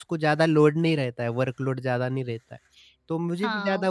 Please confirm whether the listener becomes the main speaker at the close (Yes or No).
Yes